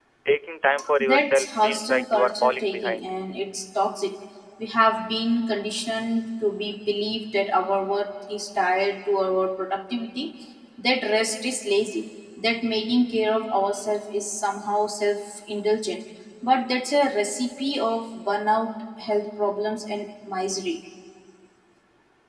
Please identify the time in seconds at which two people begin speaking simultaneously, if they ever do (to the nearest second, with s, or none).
1 s